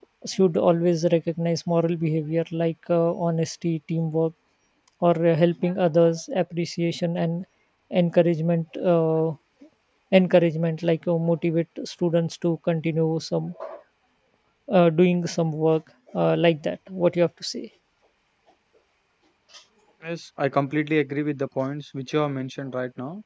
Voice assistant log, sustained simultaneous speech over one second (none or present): none